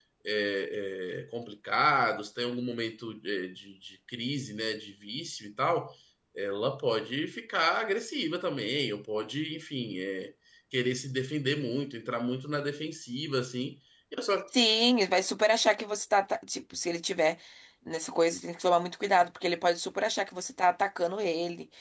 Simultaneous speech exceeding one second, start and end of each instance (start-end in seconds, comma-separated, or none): none